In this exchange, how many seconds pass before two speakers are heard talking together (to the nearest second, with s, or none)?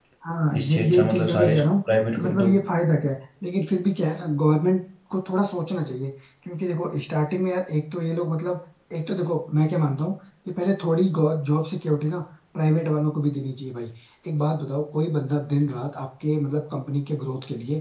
1 s